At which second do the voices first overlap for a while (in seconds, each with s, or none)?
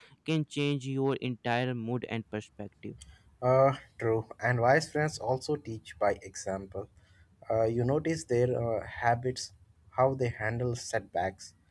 none